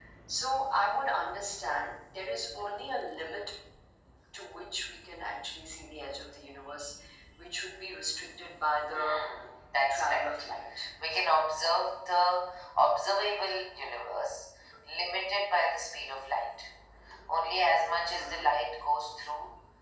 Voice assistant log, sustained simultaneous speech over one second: none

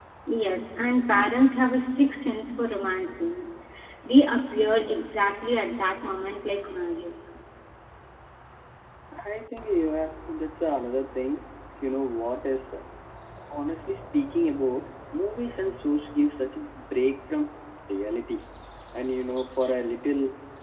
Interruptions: none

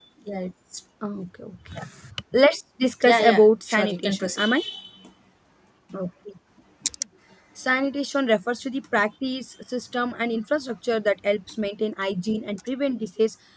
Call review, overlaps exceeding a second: present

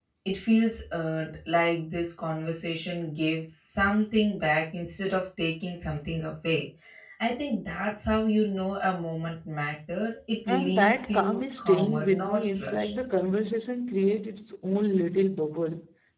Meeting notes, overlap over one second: present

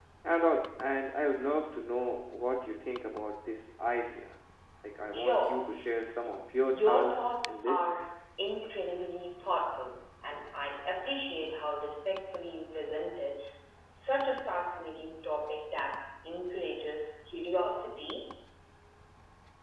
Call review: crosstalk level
present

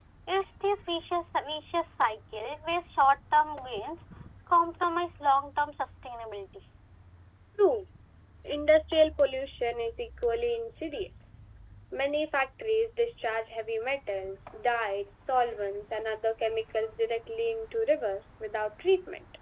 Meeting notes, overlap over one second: none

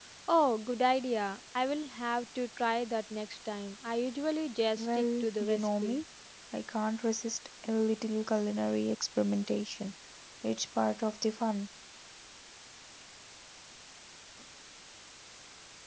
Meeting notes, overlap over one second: present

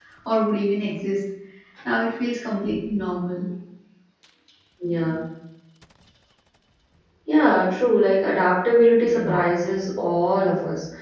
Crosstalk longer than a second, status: none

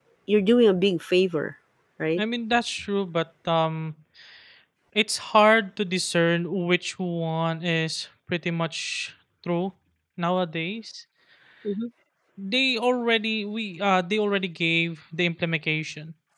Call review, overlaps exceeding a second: none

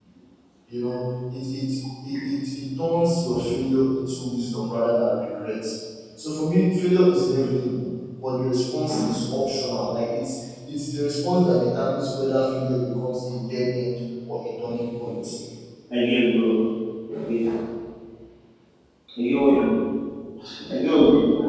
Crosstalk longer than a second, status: none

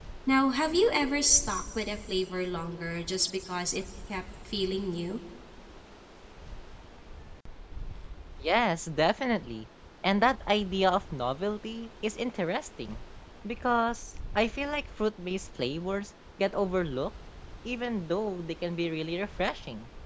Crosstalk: none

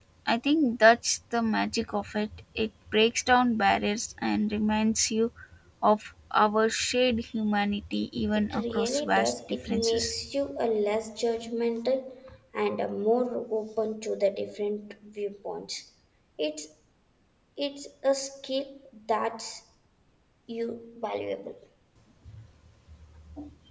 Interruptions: present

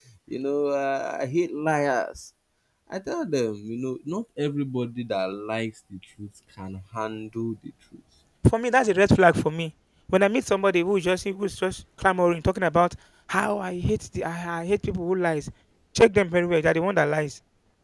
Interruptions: none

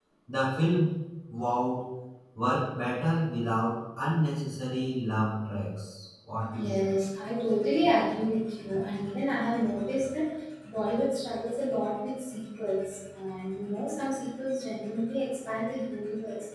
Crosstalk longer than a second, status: none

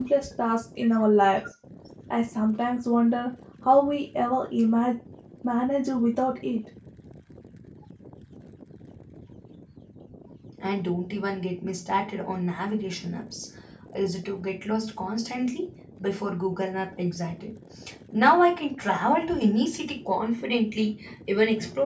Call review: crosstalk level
none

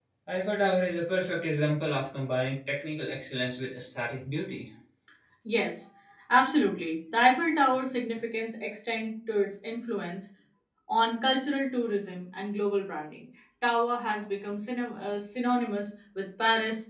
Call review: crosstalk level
none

